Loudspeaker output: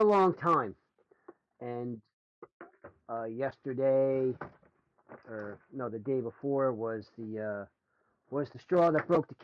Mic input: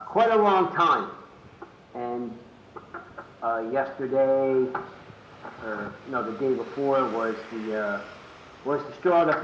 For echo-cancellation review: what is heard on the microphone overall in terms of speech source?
echo only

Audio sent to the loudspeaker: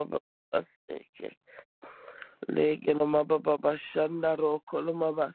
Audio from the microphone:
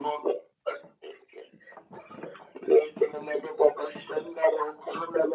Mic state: echo only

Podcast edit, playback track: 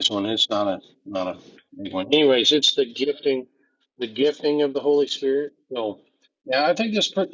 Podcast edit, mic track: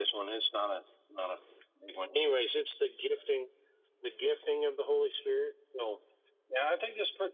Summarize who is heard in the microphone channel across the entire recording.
echo only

